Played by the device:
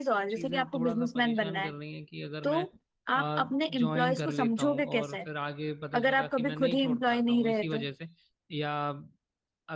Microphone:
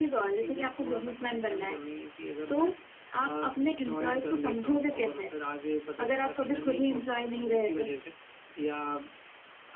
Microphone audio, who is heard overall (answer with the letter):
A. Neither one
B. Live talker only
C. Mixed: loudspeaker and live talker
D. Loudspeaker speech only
D